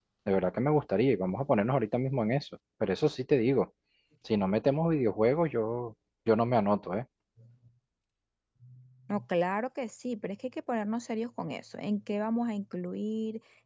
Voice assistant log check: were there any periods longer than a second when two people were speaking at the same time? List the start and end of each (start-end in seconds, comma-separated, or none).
none